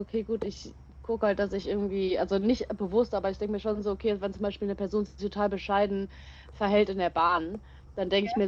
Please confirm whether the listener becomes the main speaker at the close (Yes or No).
No